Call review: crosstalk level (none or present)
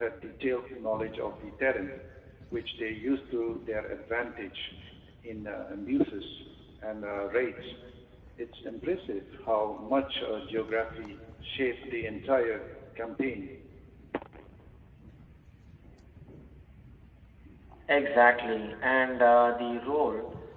none